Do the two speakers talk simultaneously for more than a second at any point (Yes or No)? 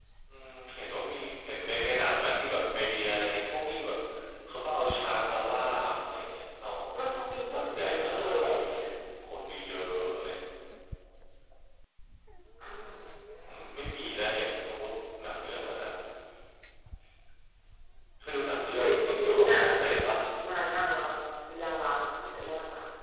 Yes